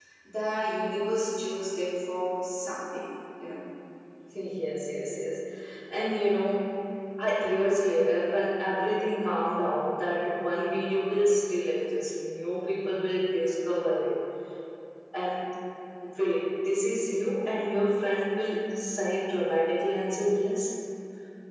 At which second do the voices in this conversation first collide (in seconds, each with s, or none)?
none